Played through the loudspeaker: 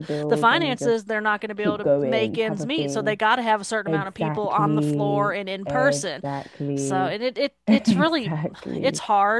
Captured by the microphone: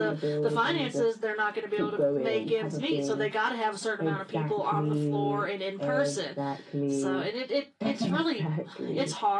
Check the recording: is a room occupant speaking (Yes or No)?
No